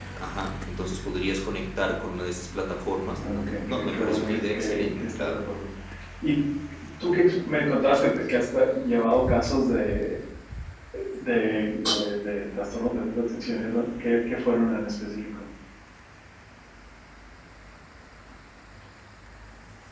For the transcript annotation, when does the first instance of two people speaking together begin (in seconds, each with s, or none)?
3.2 s